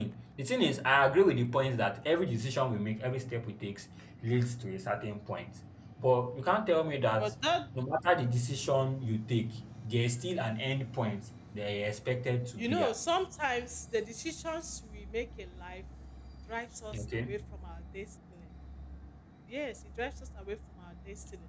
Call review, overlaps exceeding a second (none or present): none